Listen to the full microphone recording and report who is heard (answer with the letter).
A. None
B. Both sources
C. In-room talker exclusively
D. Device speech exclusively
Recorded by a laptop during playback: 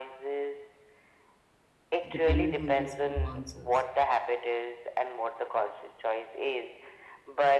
B